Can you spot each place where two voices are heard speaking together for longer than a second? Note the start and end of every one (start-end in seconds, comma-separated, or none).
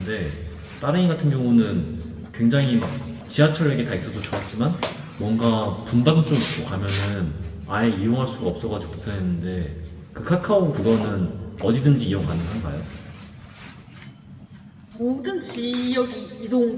none